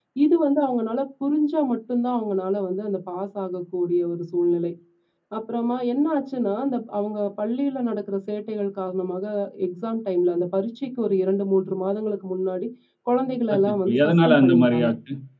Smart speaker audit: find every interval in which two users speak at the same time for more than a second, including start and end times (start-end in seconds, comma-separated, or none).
13.5-14.9